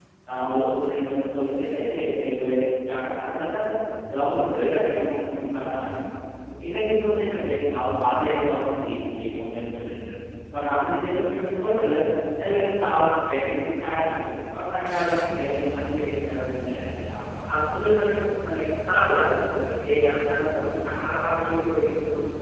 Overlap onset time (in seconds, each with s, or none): none